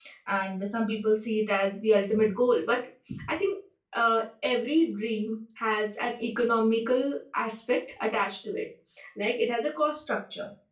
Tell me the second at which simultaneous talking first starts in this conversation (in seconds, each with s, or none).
none